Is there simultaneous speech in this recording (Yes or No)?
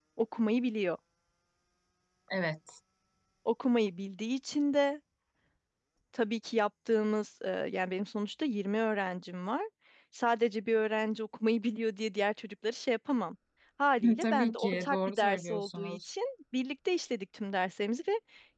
Yes